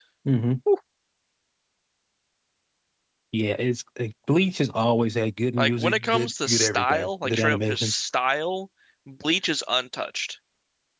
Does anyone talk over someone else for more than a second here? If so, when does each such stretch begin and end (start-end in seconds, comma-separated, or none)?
5.6-7.9